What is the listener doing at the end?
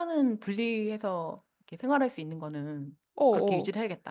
taking over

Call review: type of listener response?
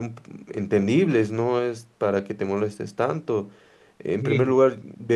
listening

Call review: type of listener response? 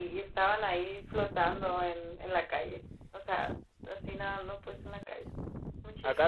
taking over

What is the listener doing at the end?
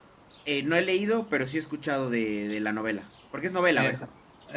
taking over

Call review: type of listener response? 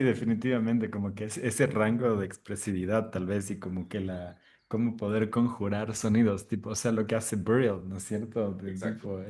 listening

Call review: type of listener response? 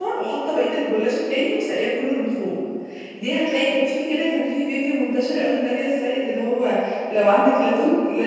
taking over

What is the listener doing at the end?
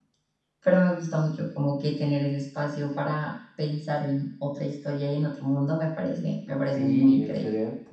taking over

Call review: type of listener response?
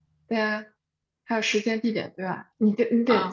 taking over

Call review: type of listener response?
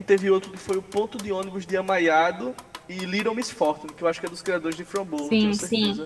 taking over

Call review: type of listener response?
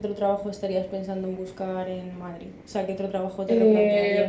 taking over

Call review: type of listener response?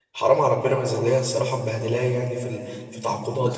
taking over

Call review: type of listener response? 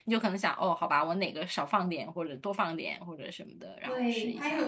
taking over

